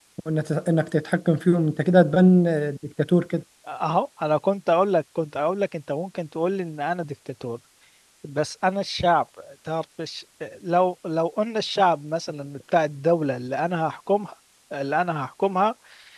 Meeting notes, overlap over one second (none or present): none